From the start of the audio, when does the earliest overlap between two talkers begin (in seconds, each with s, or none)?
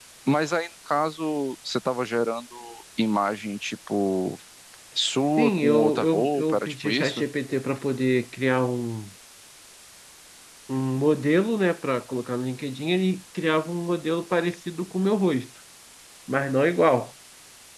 5.4 s